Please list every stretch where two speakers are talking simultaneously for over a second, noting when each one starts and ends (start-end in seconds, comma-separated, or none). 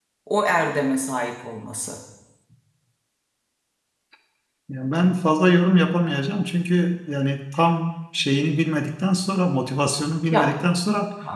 none